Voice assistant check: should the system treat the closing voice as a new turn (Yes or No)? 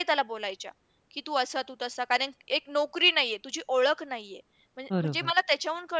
No